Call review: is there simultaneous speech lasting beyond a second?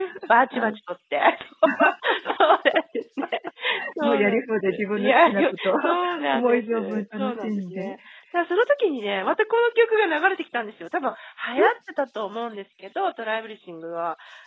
Yes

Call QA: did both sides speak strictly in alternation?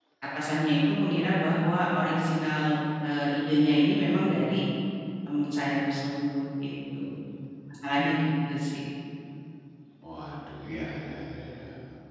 Yes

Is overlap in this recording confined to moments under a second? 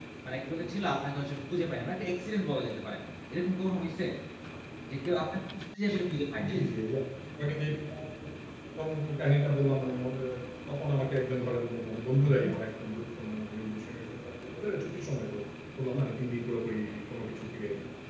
Yes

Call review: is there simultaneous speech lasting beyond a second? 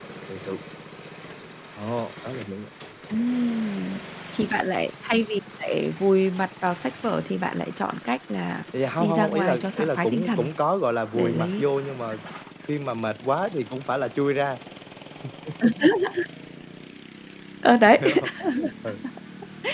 Yes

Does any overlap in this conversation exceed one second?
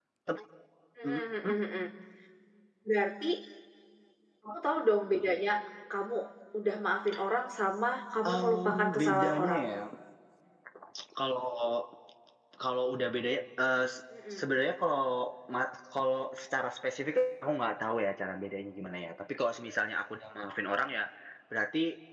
Yes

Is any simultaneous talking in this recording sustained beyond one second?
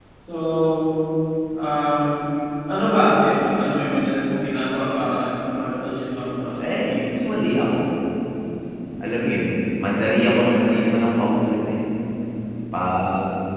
No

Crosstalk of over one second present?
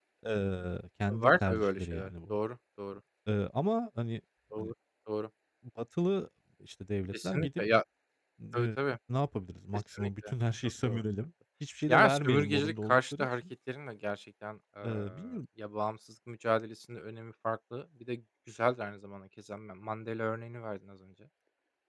Yes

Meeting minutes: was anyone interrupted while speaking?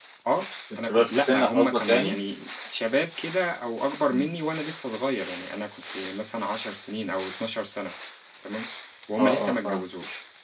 Yes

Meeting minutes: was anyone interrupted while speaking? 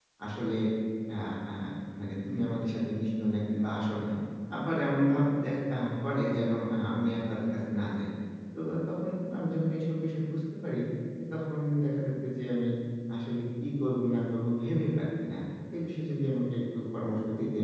No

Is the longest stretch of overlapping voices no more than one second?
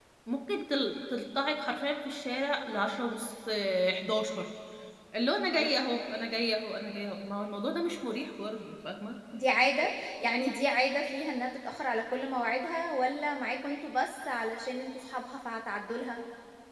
Yes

